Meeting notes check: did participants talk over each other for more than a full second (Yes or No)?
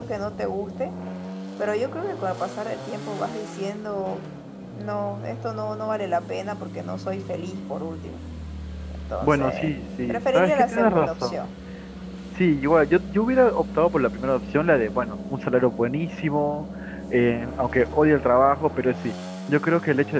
Yes